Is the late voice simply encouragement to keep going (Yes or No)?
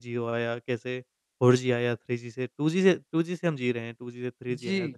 Yes